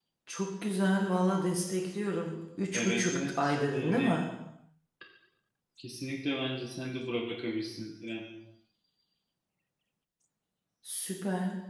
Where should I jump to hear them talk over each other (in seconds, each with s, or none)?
2.7 s